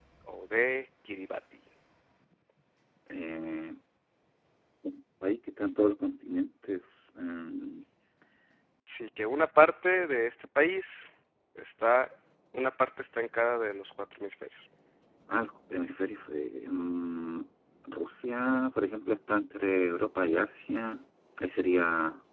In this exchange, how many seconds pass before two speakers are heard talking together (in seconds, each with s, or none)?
none